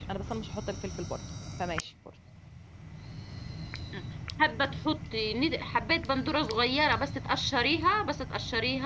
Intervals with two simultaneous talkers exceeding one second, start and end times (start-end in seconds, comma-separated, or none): none